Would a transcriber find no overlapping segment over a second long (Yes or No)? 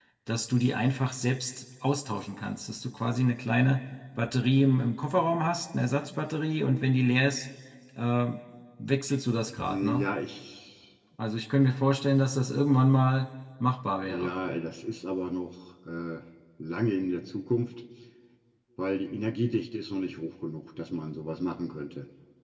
Yes